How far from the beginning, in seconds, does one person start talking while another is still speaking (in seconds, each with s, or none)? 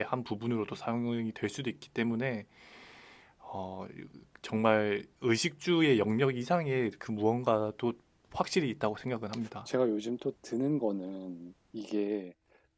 none